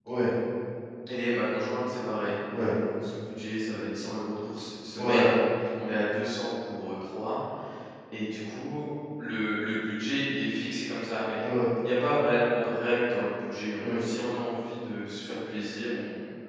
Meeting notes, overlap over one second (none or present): none